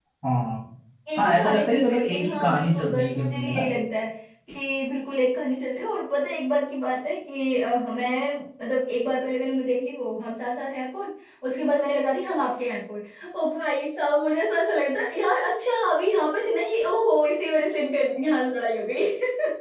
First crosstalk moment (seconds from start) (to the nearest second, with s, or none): 1 s